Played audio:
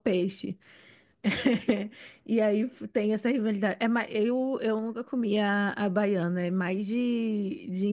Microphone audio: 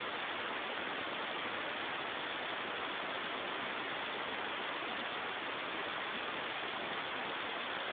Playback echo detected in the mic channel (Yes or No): No